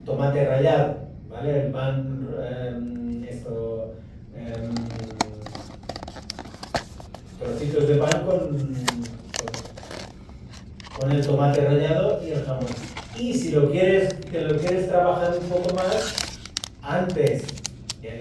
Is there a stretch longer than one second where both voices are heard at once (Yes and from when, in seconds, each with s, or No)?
No